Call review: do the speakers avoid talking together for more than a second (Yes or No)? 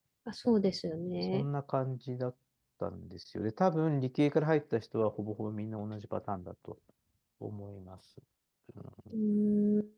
Yes